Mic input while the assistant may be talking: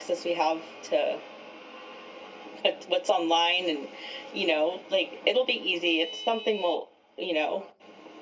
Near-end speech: none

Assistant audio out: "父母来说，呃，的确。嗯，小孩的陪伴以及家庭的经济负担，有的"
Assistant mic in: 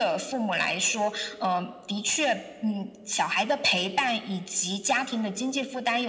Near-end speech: none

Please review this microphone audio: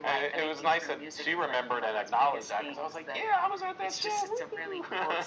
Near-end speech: none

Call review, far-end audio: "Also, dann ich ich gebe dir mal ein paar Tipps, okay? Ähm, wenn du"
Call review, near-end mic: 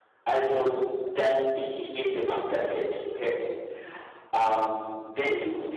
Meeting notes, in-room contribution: none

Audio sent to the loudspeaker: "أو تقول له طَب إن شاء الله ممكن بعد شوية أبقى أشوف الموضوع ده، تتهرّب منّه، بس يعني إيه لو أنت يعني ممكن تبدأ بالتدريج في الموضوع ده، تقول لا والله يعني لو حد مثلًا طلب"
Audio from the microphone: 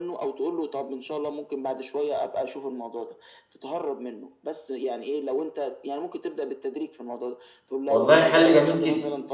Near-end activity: present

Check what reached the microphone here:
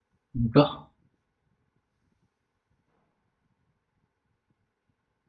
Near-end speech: present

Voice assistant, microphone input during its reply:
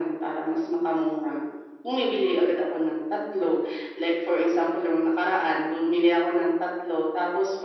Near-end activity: none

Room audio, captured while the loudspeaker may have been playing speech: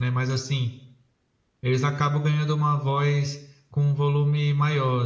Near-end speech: present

